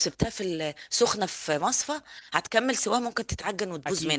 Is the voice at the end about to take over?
Yes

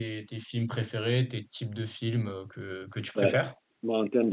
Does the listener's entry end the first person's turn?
Yes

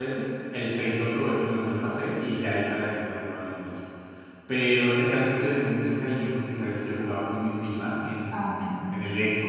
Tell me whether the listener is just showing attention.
Yes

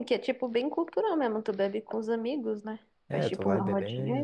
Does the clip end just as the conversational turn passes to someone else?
Yes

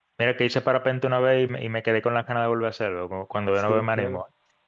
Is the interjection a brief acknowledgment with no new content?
No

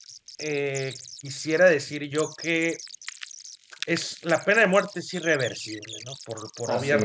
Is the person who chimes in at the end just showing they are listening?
Yes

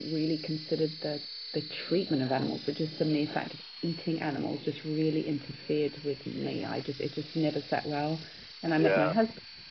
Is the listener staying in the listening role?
Yes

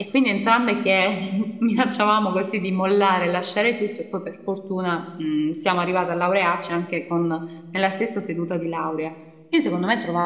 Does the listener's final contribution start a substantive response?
No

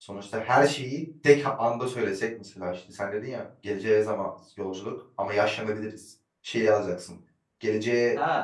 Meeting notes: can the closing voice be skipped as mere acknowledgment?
No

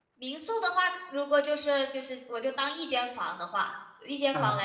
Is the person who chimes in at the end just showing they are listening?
Yes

